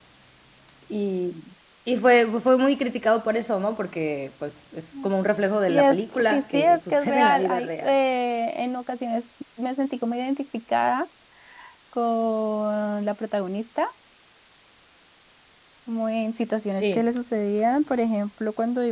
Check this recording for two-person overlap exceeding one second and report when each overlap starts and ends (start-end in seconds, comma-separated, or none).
5.7-7.9